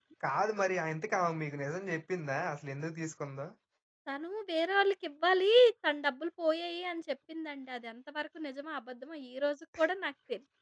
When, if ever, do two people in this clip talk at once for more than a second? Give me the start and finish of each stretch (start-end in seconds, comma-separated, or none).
none